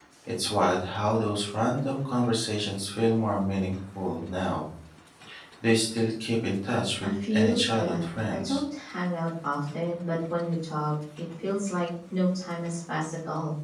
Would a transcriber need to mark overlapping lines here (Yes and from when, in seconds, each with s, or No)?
Yes, from 7.0 s